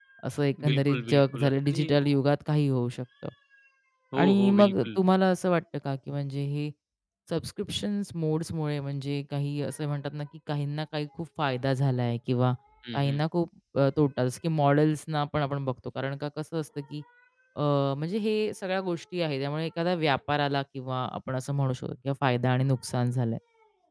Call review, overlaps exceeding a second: present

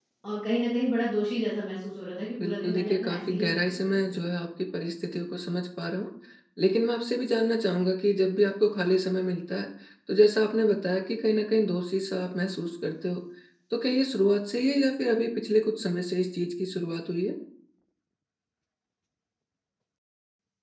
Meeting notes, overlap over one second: present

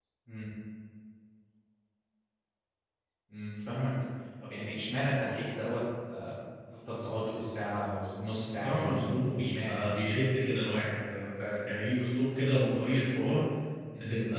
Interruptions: present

